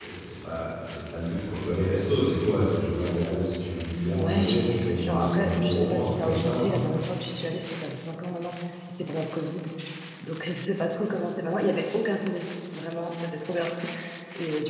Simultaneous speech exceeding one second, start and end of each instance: 4.2-6.7

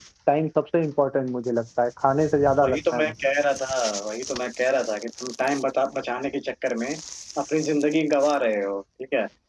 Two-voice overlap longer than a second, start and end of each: none

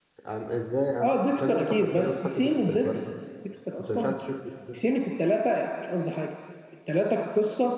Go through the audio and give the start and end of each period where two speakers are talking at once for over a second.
1.0-3.0

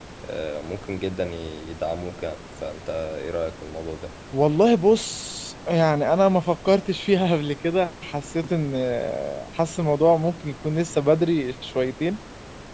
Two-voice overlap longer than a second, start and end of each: none

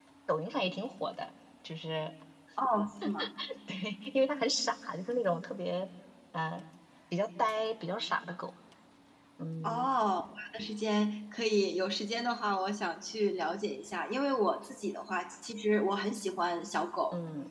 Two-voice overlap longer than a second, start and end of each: none

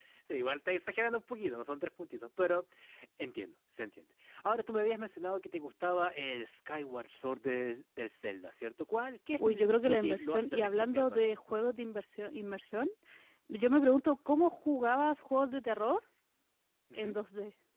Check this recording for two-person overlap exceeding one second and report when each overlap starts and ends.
9.4-11.4

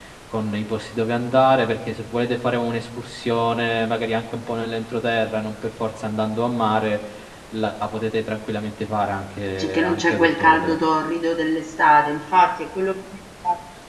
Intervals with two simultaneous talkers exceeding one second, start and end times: 9.6-10.8

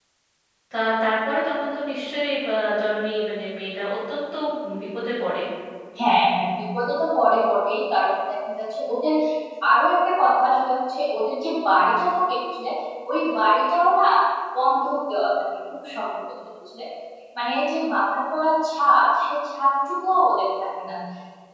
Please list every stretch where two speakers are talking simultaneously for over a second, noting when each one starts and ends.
none

